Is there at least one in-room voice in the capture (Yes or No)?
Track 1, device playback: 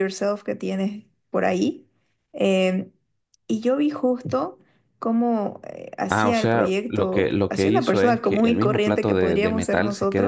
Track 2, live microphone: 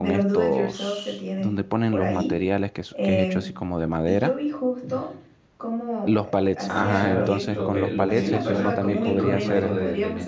Yes